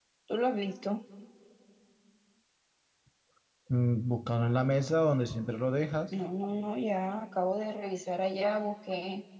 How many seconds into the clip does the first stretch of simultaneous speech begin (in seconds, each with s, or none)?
none